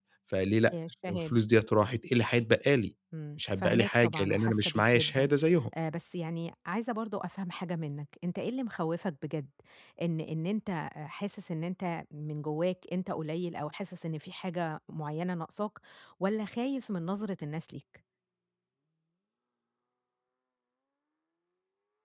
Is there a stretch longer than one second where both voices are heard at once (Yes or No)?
Yes